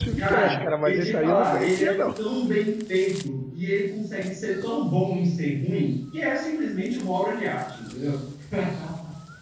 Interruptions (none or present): present